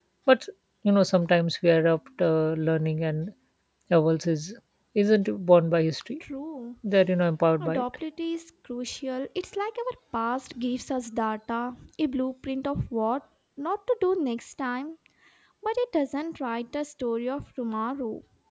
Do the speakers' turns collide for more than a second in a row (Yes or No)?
No